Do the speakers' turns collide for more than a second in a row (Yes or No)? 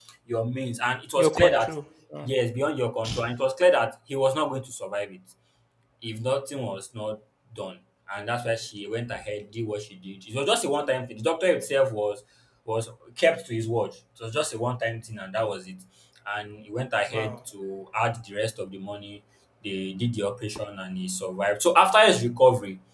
No